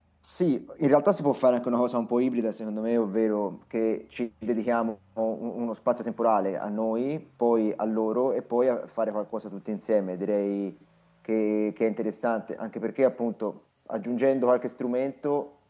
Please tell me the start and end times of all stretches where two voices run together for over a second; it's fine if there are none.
none

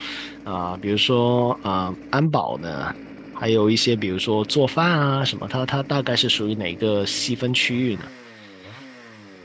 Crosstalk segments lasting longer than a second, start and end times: none

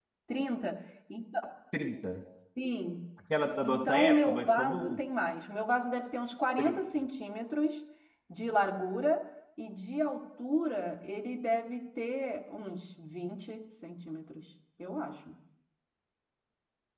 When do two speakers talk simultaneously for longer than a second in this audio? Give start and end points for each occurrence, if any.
3.6-5.0

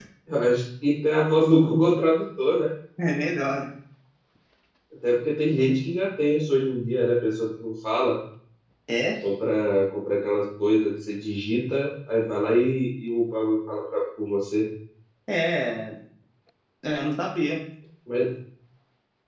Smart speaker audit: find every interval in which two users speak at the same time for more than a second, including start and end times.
none

